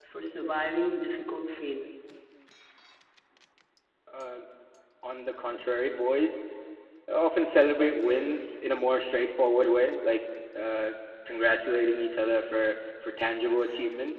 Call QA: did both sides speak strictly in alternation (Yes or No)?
Yes